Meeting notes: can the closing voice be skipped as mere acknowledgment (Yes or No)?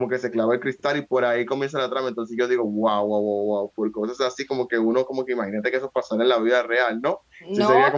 No